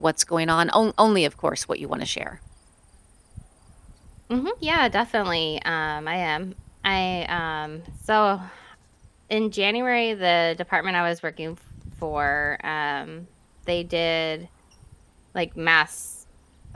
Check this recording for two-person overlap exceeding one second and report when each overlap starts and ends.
none

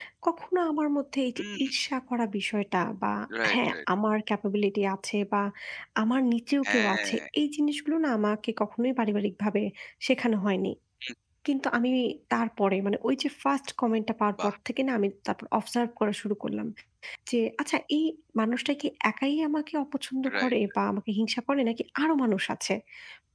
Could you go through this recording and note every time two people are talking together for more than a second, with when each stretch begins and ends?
none

